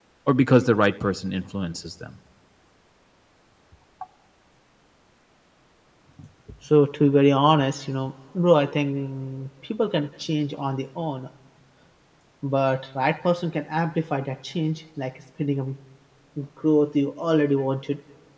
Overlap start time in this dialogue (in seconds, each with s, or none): none